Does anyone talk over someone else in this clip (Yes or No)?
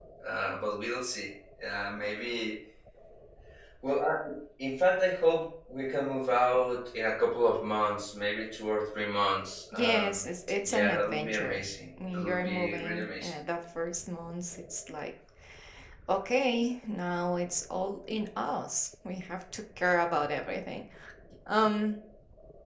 Yes